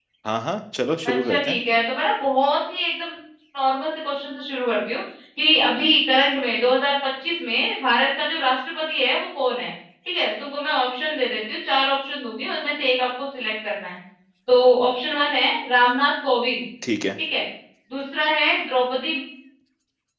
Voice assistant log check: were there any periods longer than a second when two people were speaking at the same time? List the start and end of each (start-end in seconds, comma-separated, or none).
none